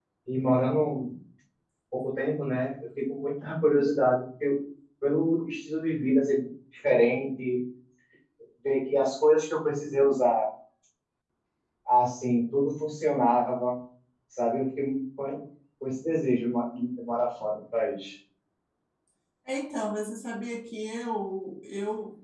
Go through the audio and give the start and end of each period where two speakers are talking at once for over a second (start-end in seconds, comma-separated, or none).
none